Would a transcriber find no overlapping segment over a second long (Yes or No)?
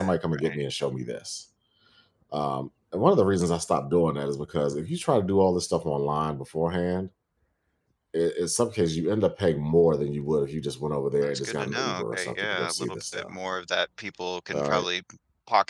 No